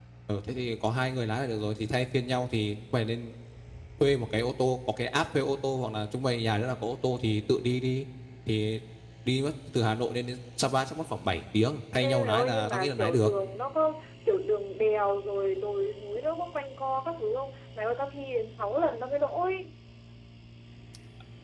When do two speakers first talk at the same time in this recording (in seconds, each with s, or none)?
12.0 s